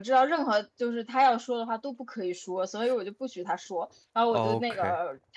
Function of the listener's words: listening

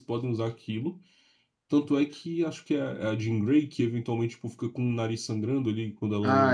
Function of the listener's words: taking over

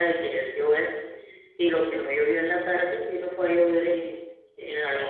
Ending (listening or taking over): taking over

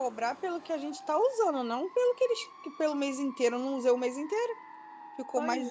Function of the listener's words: listening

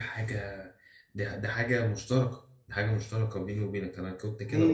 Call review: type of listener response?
taking over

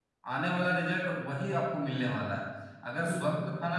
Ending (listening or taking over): listening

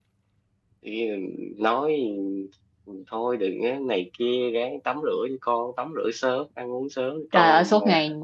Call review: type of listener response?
taking over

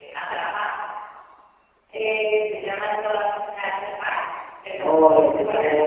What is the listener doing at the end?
taking over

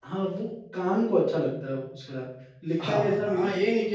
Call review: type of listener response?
taking over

